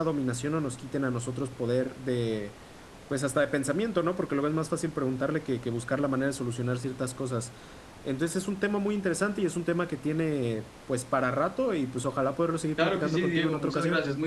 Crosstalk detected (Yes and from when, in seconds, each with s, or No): Yes, from 12.8 s